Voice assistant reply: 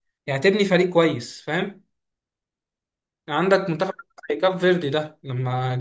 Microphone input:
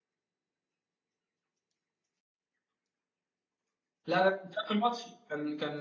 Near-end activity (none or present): present